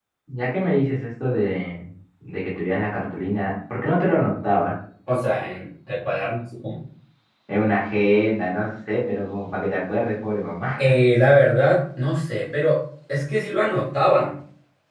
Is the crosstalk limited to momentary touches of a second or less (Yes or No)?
Yes